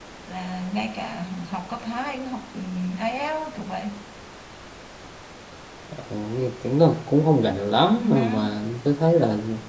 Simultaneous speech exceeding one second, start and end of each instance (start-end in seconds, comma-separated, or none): none